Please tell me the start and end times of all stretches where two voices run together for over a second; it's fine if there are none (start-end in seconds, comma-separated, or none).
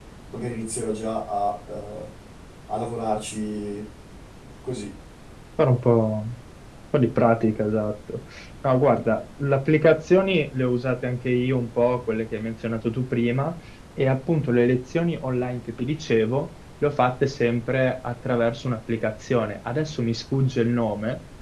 none